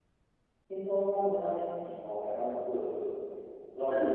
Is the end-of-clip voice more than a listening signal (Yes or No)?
Yes